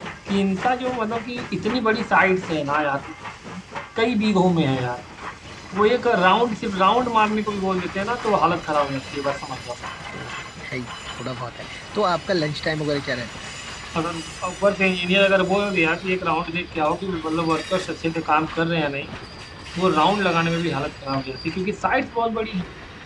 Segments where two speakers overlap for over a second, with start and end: none

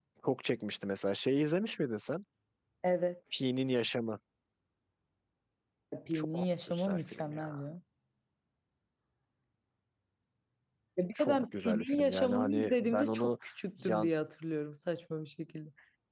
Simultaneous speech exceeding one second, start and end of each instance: 6.1-7.6, 11.2-13.4

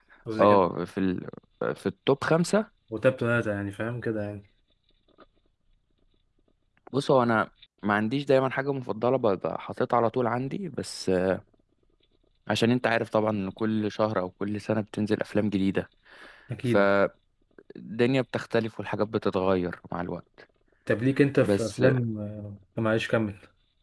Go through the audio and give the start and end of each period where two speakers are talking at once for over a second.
none

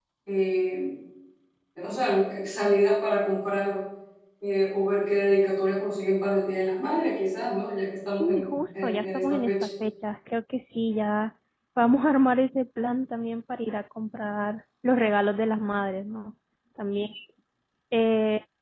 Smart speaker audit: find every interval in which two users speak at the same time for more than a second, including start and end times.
8.1-9.7

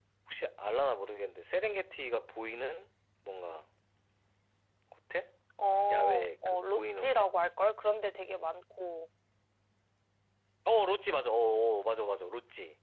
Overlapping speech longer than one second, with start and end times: 5.9-7.2

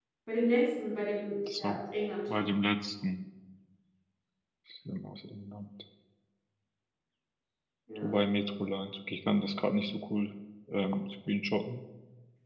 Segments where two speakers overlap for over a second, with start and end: none

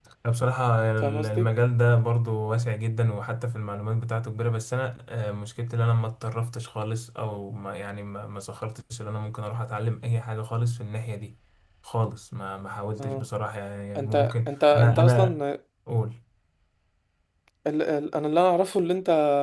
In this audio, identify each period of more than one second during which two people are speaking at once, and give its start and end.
14.0-15.4

